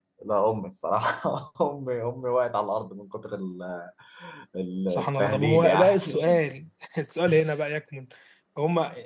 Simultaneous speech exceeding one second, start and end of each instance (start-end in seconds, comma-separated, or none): 4.9-6.4